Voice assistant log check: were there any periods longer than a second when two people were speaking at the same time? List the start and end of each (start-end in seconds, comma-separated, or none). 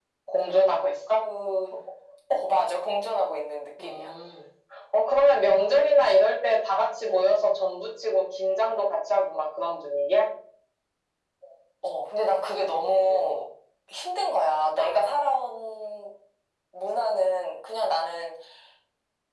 none